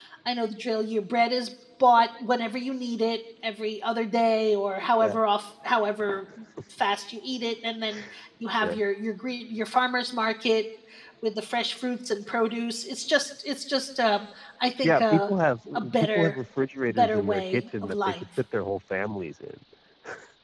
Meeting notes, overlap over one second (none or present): present